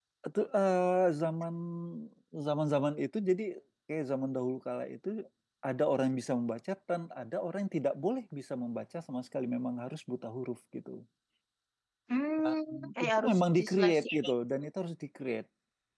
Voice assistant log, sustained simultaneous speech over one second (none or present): present